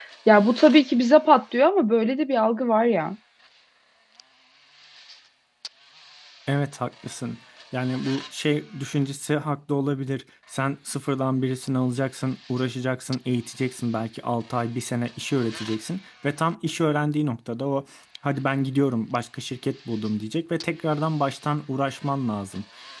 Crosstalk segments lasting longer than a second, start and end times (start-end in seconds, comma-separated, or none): none